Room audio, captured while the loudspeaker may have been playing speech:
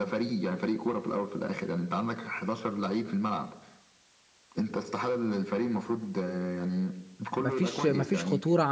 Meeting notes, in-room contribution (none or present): present